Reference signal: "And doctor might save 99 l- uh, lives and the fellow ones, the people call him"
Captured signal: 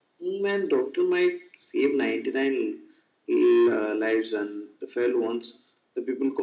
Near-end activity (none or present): none